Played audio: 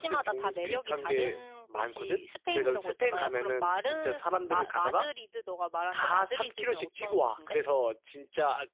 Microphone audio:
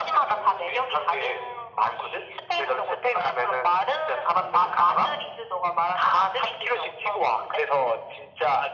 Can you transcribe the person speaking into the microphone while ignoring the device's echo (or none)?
none